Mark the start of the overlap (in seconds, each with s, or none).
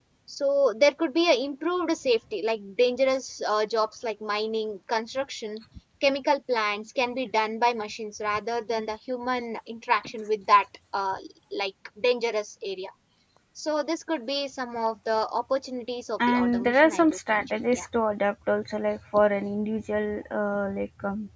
16.2 s